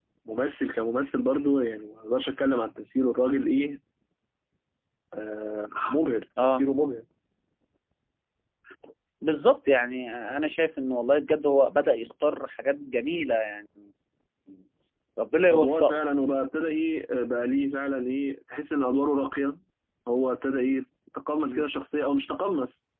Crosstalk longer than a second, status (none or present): none